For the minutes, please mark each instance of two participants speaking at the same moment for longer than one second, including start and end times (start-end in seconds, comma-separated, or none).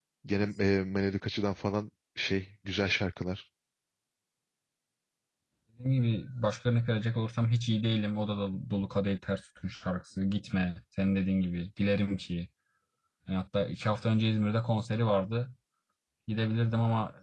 none